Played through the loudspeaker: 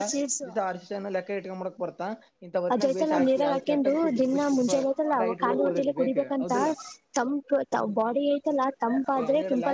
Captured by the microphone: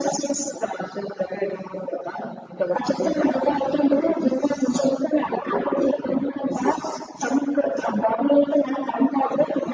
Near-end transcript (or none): none